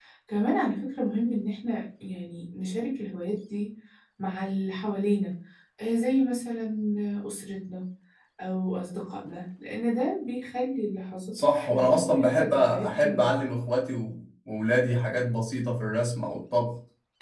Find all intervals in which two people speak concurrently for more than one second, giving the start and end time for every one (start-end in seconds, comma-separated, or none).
11.3-13.3